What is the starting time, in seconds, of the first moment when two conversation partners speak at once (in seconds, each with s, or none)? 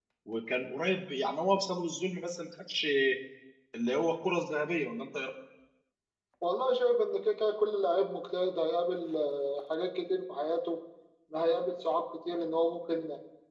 none